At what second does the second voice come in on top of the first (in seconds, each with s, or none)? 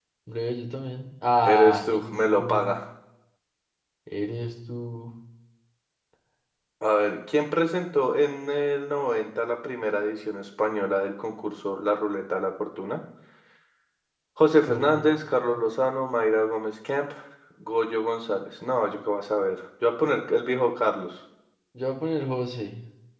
1.4 s